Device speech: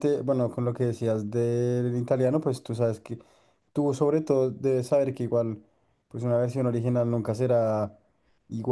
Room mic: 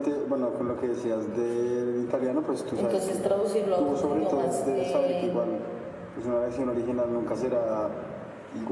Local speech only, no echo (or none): entonces traducirlo a otros idiomas eh,